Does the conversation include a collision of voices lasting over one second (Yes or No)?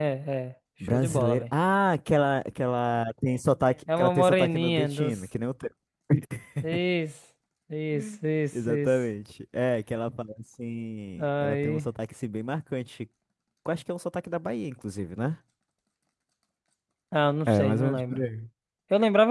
Yes